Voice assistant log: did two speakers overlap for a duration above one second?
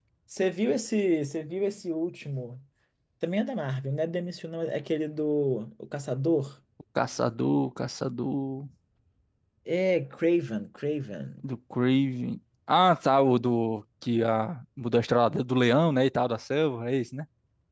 No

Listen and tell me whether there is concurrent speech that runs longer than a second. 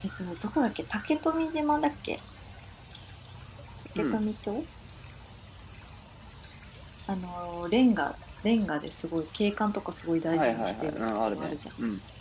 Yes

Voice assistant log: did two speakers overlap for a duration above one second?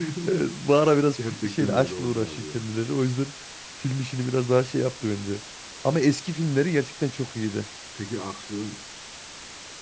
Yes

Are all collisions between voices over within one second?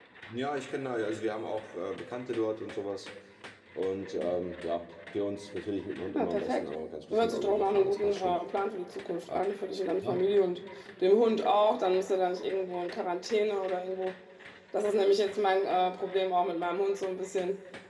No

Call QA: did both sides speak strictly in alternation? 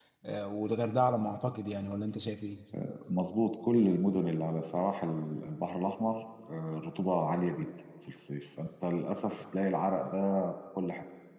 Yes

